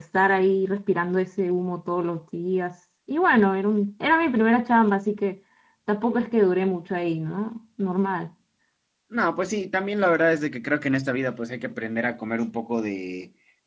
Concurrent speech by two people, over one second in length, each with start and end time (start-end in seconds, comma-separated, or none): none